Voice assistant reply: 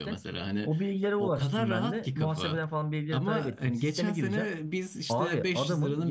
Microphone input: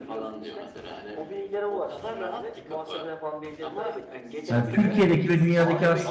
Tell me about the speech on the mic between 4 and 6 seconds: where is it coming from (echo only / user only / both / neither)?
both